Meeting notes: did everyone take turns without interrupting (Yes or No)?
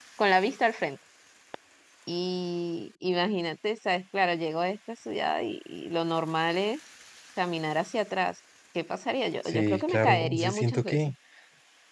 No